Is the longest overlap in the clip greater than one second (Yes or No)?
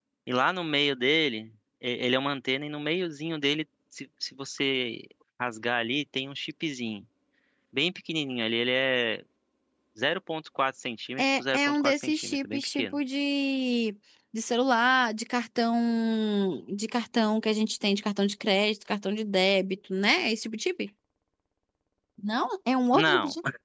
Yes